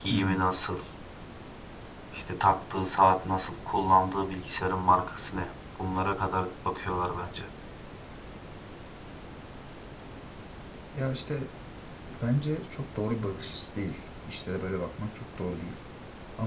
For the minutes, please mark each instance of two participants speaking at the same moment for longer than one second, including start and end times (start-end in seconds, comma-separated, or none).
none